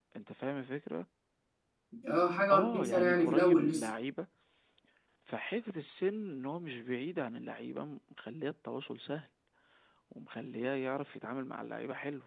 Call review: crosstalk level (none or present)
present